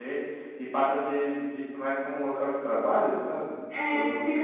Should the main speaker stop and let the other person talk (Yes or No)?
Yes